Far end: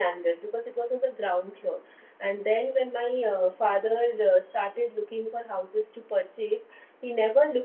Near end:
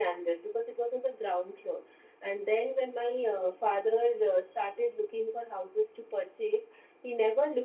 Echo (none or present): present